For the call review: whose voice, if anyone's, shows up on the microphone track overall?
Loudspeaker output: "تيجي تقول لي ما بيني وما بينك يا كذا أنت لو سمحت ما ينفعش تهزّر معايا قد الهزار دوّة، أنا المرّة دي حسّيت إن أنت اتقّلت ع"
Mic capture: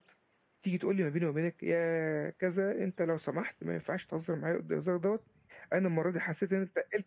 echo only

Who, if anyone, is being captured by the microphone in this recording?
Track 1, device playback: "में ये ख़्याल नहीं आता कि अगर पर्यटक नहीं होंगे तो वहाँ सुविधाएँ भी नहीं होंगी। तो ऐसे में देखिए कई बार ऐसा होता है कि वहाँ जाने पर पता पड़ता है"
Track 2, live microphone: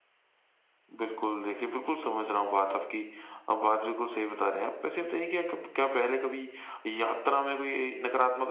user only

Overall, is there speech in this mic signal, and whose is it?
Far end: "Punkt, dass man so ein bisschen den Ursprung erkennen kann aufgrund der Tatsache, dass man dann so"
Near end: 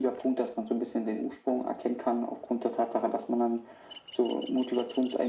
echo only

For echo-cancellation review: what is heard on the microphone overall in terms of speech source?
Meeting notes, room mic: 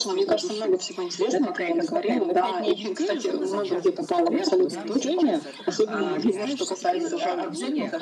both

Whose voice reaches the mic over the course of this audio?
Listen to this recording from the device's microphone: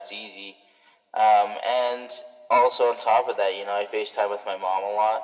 echo only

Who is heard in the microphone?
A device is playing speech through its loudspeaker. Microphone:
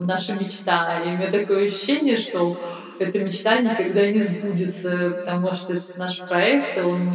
user only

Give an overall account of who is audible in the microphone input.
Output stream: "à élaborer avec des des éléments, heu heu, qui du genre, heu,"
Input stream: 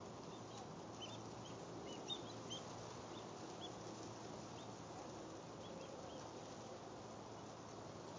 neither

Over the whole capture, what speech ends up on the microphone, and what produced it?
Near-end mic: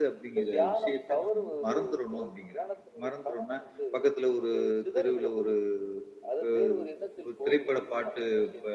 both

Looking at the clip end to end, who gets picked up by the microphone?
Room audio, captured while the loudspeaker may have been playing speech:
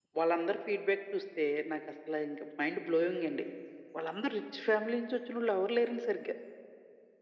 echo only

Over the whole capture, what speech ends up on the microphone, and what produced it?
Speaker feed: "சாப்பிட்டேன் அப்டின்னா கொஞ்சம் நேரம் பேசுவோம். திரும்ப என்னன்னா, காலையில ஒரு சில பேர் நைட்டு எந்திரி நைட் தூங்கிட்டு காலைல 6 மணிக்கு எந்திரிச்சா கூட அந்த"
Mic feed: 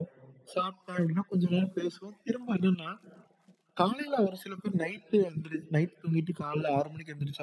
echo only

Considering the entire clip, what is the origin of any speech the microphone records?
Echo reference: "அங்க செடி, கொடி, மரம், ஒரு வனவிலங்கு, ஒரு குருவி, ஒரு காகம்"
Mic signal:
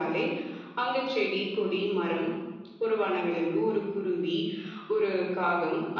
echo only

